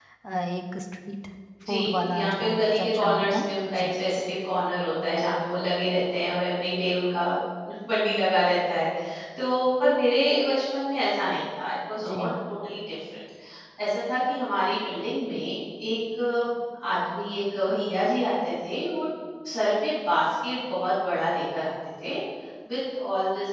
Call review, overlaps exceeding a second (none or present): present